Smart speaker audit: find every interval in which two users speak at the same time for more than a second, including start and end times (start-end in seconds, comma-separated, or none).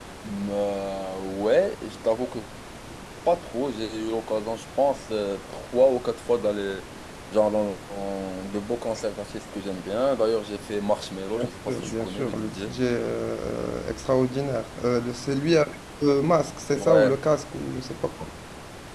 11.3-12.7